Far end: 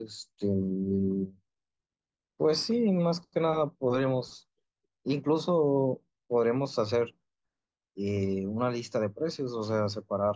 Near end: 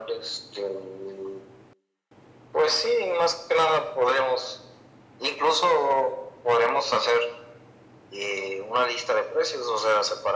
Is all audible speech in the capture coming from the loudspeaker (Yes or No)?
Yes